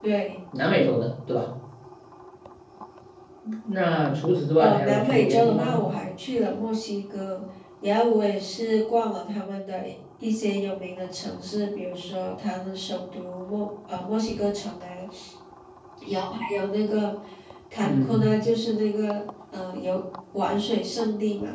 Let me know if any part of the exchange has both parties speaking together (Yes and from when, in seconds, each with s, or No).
Yes, from 4.6 s